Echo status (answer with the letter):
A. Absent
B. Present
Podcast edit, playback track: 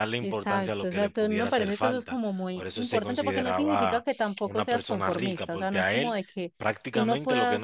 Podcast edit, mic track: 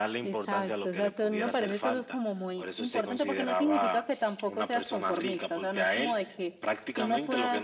B